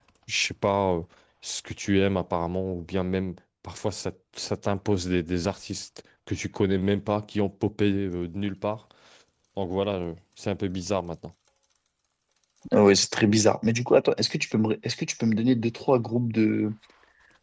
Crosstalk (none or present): none